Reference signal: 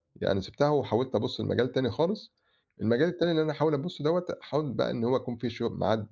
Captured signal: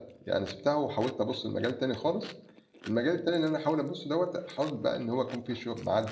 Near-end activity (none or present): none